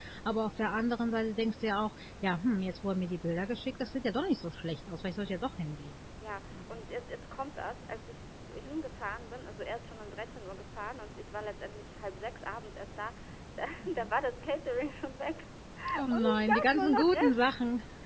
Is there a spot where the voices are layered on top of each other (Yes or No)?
Yes